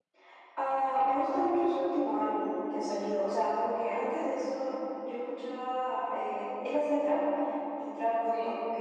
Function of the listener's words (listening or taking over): listening